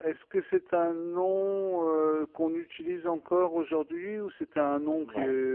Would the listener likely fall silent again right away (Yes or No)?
No